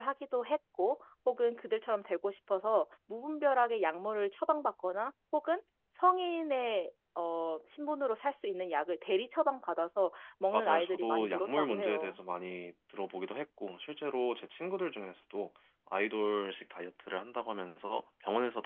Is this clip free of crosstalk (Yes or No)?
No